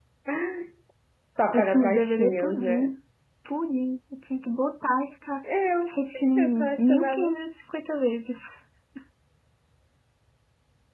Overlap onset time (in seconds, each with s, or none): 1.5 s